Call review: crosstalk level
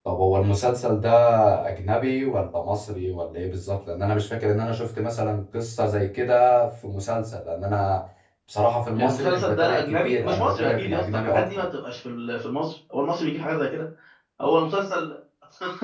present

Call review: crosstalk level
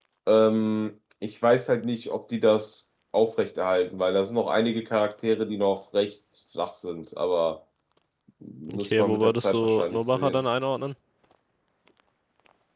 present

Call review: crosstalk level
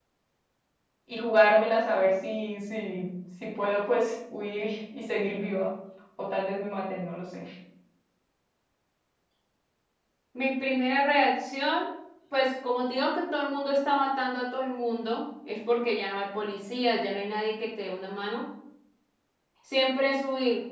none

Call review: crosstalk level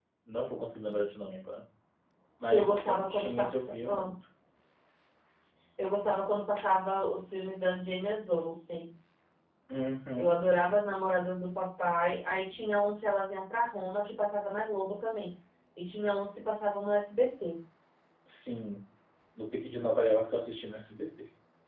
present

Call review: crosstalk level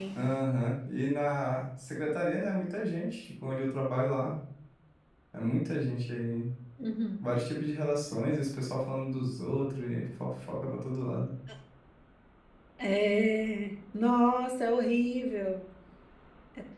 none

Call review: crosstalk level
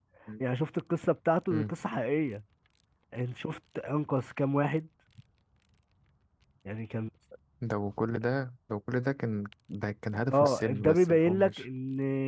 present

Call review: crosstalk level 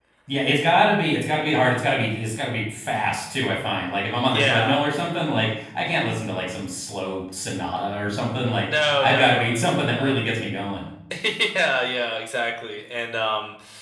present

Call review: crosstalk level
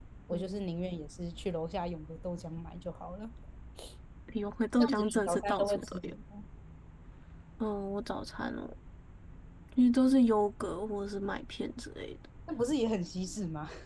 present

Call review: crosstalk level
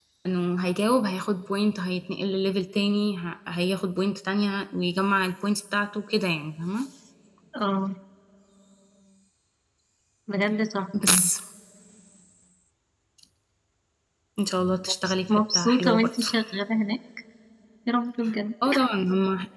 present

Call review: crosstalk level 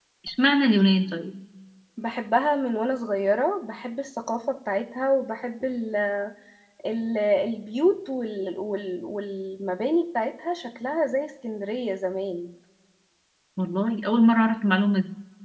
none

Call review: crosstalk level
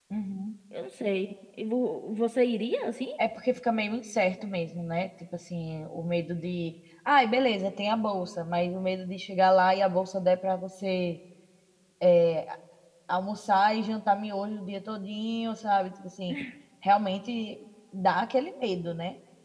none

